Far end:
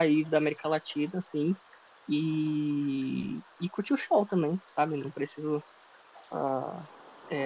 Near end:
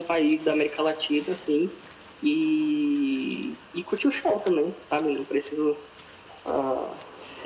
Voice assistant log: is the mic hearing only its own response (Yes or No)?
Yes